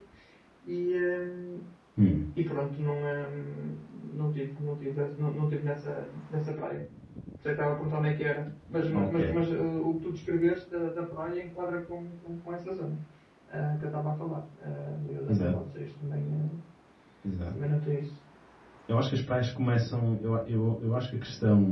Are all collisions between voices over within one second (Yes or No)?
Yes